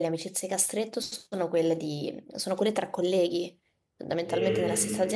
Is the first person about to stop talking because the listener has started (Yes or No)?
No